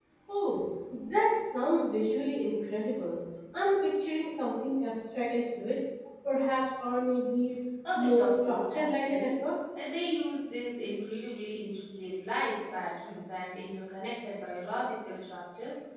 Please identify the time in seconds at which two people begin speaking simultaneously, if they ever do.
8 s

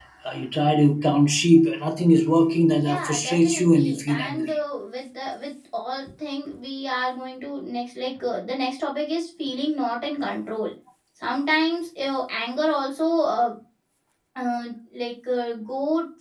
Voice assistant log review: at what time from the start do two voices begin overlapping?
3 s

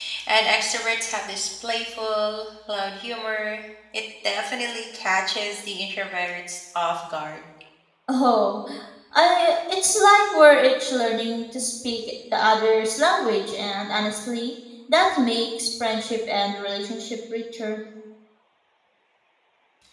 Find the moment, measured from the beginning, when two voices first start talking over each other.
none

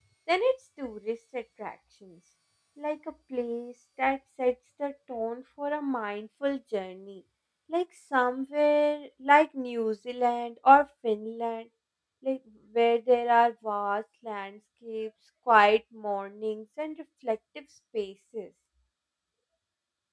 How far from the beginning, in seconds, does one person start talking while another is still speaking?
none

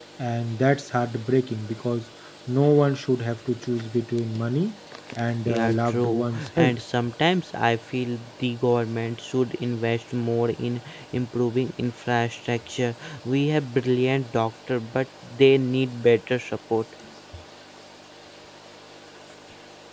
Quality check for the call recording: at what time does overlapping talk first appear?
5 s

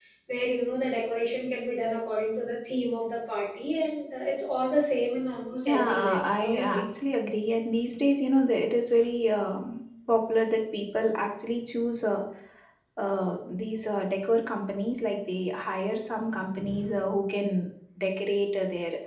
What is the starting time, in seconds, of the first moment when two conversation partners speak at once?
6 s

